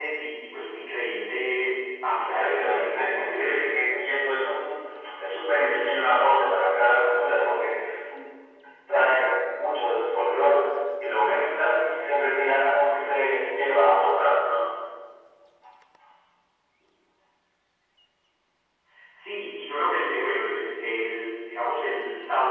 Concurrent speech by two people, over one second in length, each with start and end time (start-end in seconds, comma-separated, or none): 2.3-3.7